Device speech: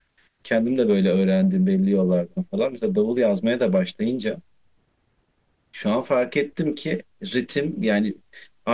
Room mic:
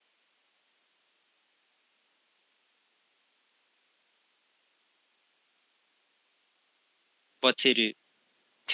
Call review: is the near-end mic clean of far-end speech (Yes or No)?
Yes